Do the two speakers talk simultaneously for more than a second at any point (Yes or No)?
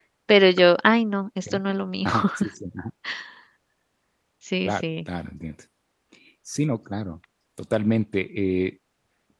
No